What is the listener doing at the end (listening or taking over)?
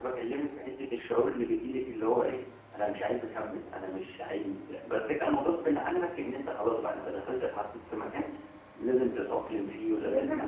taking over